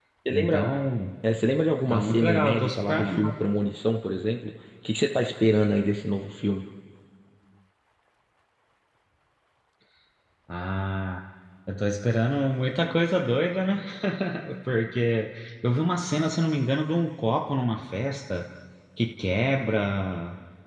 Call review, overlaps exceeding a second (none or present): present